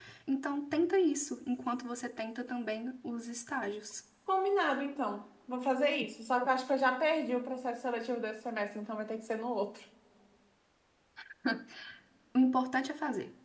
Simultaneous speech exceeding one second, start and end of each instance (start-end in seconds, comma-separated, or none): none